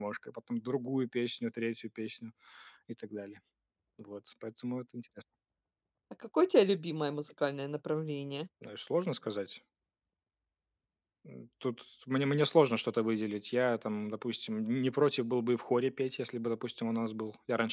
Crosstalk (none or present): none